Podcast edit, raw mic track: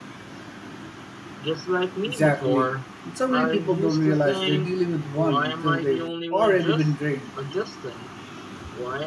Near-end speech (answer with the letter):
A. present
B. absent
A